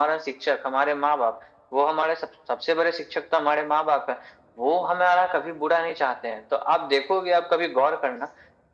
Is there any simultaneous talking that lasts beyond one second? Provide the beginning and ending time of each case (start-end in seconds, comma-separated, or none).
none